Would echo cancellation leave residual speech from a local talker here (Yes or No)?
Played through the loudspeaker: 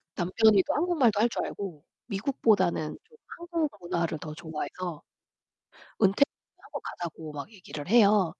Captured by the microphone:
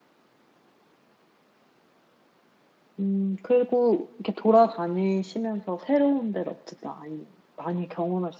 Yes